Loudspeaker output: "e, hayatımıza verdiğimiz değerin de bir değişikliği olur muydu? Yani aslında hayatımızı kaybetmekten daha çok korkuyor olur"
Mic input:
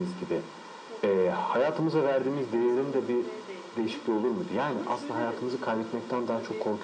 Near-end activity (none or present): present